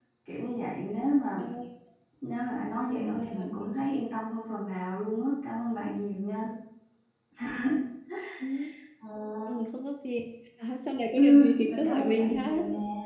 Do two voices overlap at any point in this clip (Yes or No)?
Yes